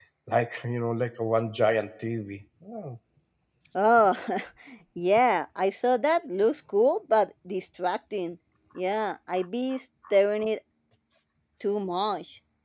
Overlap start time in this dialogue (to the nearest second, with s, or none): none